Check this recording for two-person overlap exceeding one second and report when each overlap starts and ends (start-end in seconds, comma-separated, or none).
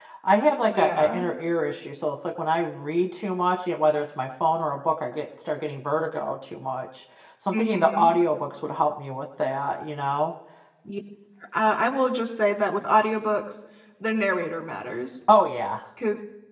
none